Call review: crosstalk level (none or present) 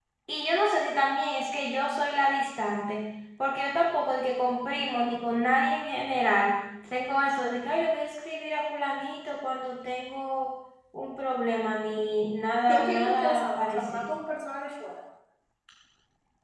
present